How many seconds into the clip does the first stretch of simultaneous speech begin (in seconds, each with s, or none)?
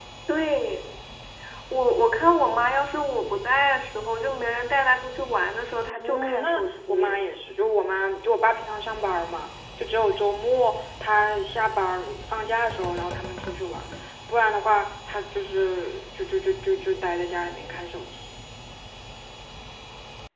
5.8 s